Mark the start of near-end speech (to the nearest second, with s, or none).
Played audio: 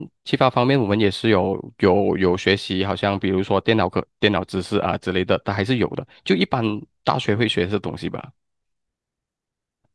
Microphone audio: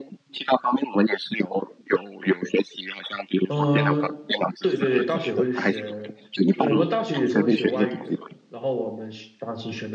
3 s